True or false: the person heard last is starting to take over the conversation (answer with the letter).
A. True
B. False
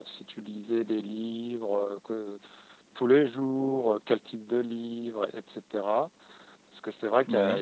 B